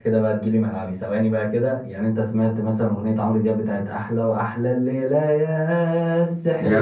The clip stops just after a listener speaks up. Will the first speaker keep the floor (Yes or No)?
No